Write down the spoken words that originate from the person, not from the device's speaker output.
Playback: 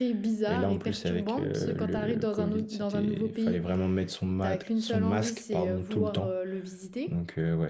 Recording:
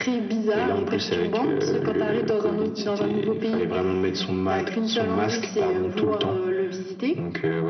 none

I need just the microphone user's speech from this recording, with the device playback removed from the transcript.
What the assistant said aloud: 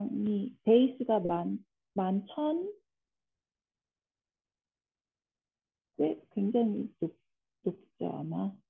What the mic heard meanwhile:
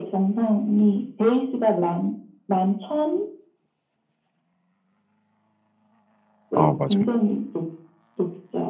아, 맞아요.

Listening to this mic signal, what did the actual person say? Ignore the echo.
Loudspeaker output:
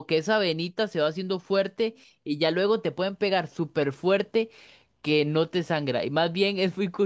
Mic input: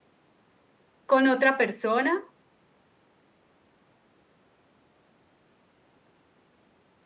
con otra persona

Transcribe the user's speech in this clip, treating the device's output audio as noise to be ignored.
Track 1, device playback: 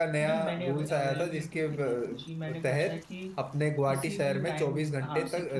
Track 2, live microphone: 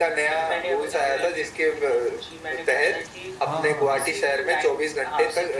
हाँ हाँ हाँ

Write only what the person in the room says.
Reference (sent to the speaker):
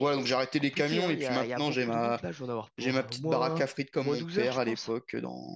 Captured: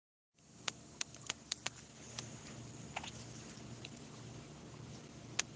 none

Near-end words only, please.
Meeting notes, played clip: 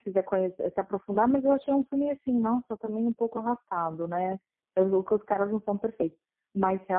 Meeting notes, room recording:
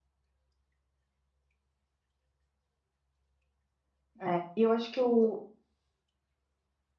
É, e eu acho que o.

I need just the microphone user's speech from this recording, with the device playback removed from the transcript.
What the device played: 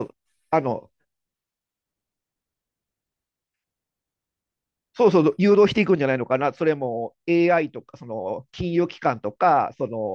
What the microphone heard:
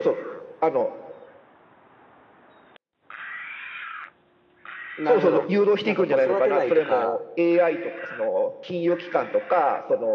なるほど。なんかこう、育てないとか、

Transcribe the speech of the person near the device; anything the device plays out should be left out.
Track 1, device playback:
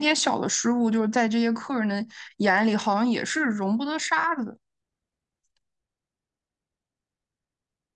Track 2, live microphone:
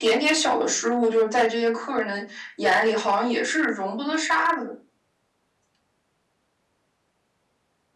none

